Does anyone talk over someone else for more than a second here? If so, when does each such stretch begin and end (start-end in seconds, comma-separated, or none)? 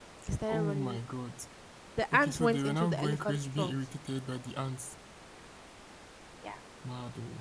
2.1-3.7